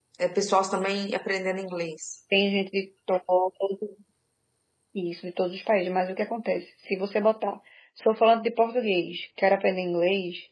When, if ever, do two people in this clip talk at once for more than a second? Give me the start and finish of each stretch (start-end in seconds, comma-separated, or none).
none